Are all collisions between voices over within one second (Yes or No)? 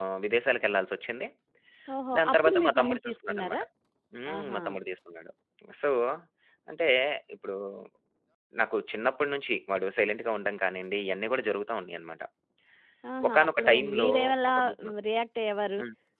No